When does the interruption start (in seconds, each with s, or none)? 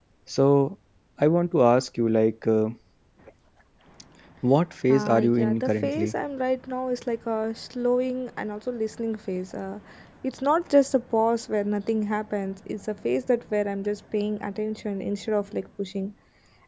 4.9 s